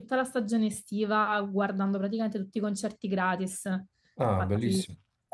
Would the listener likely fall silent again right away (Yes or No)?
Yes